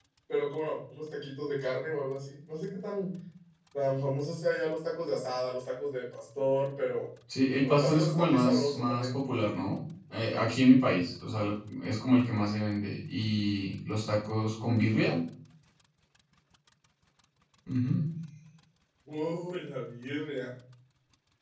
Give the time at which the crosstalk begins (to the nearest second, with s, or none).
8 s